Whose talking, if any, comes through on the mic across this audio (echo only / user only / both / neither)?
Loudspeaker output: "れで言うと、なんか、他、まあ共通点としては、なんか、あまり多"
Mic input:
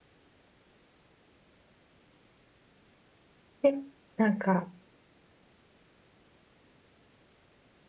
user only